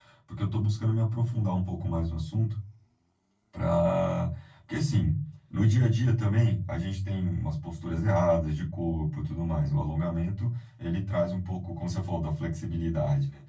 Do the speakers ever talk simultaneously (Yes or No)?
No